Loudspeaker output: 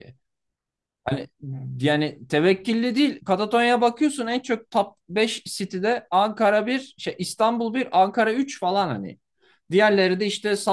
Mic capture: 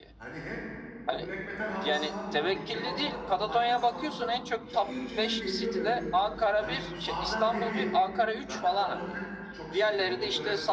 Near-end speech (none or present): present